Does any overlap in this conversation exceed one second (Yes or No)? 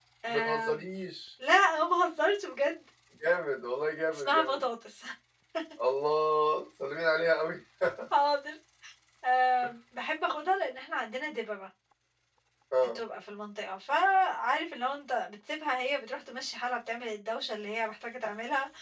No